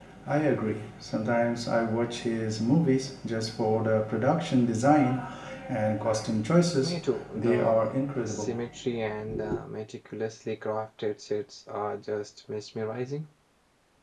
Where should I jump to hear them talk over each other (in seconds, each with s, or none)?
6.8 s